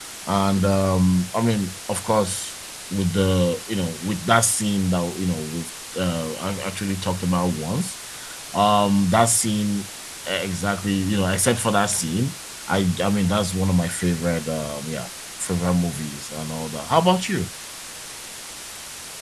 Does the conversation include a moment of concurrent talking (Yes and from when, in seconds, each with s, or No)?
No